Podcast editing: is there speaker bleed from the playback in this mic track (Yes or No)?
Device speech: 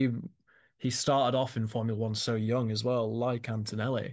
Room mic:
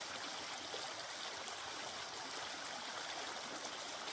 No